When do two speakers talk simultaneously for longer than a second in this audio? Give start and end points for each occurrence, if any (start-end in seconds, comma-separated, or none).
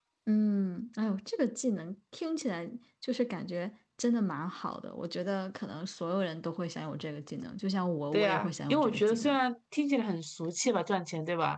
8.1-9.4